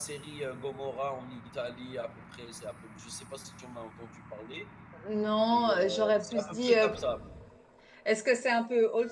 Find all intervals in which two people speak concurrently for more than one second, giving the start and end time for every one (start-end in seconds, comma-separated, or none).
5.5-6.9